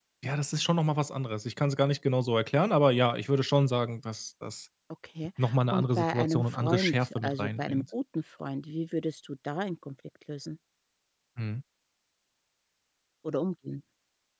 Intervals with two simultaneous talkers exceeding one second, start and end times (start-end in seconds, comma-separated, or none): 5.7-7.8